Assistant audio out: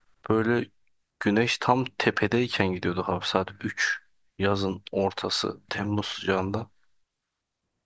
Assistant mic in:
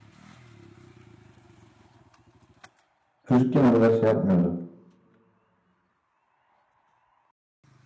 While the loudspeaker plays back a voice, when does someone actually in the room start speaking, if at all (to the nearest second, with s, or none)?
3 s